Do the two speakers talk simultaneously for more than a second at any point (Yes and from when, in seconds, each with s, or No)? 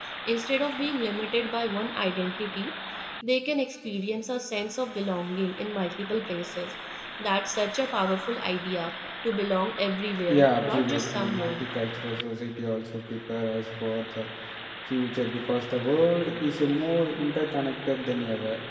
Yes, from 10.3 s